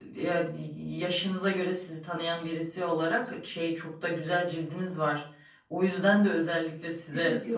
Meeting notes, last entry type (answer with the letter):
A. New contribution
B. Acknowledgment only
B